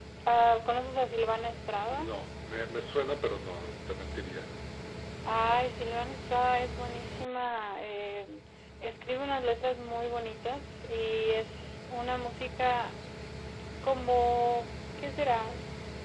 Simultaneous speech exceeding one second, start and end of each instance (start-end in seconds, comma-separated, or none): none